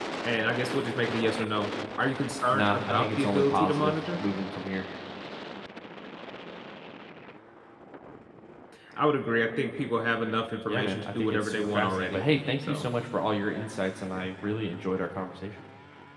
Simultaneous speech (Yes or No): Yes